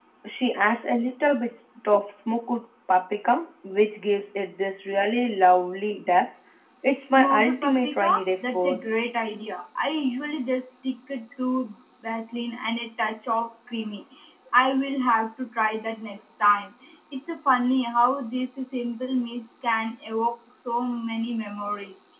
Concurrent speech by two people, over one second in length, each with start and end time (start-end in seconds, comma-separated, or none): 7.1-8.9